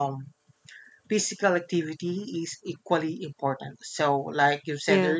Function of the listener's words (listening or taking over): listening